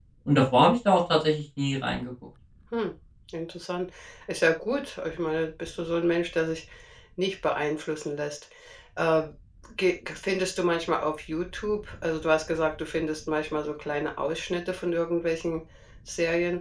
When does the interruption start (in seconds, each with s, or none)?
none